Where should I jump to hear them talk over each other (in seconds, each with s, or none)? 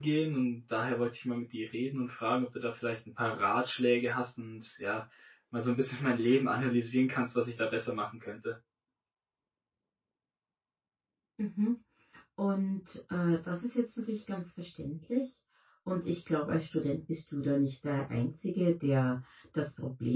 none